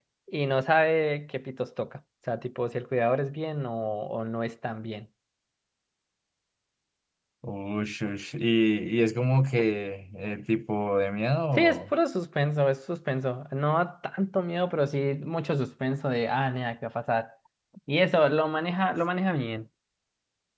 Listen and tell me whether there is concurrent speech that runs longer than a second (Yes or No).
No